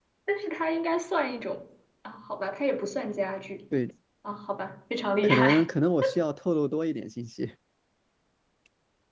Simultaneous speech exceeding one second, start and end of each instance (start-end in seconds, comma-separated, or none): none